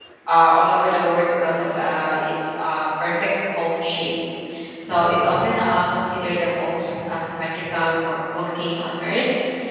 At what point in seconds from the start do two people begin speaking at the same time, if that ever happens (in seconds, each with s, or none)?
none